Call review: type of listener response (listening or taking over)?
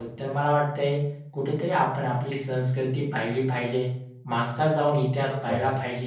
listening